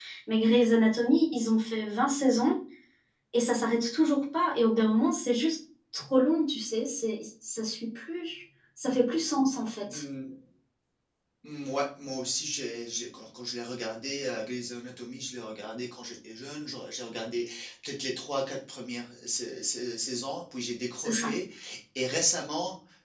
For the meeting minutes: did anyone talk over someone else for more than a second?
No

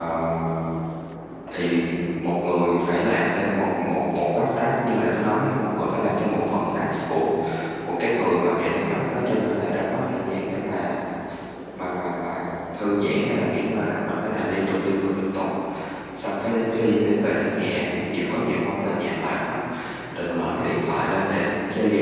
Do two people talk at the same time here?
No

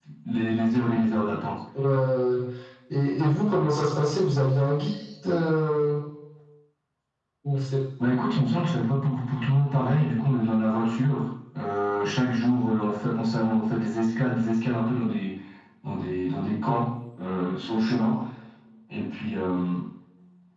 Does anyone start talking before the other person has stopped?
No

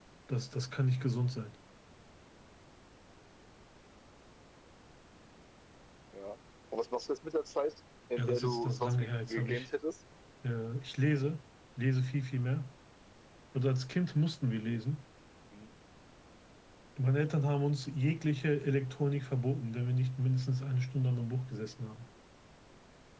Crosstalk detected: Yes, from 8.2 s

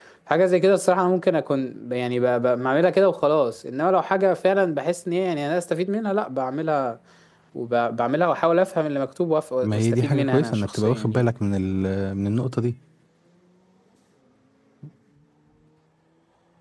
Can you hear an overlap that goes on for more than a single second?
Yes, from 9.6 s

